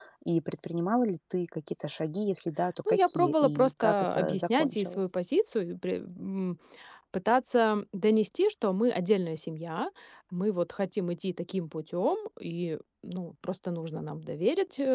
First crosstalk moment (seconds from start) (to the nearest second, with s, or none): 3 s